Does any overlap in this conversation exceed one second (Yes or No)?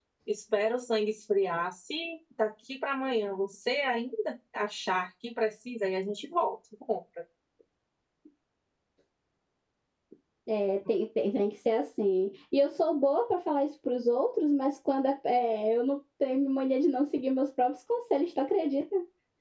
No